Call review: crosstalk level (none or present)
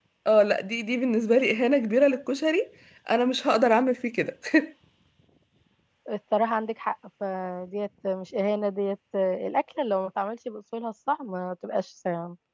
none